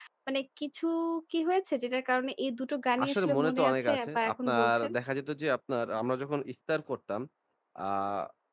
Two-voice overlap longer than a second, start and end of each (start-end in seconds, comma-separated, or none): 3.0-4.9